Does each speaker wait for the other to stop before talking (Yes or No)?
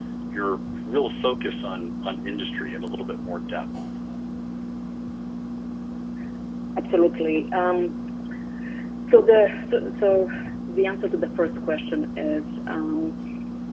Yes